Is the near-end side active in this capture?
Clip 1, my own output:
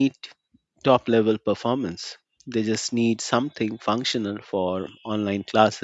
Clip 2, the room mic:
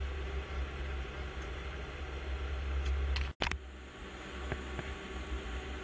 No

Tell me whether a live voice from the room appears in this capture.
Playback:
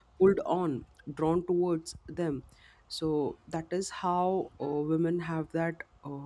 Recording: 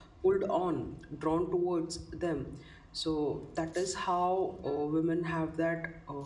No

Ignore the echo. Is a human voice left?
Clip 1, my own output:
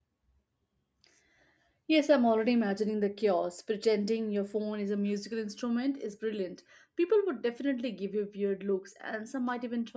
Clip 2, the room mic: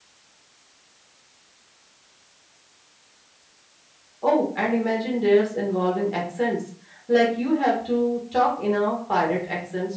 Yes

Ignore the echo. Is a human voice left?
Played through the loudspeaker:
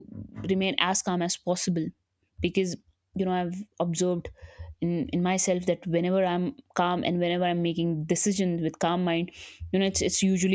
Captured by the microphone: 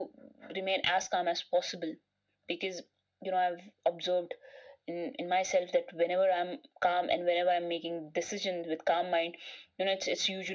No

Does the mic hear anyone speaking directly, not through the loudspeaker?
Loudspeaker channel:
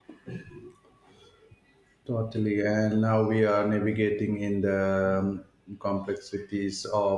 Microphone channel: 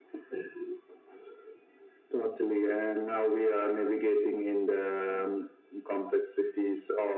No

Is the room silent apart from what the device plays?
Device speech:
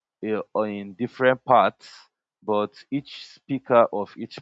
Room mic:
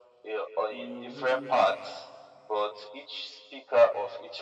No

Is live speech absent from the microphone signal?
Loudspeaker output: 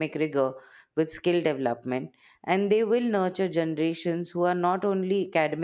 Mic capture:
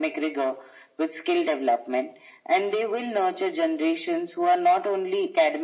Yes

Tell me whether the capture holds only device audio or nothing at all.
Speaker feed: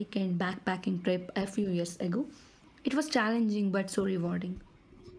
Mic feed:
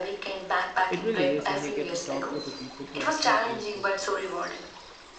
No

